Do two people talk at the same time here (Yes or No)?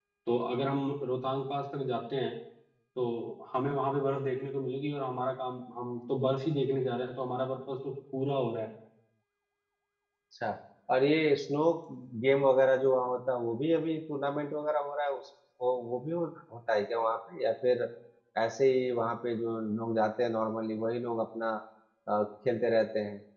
No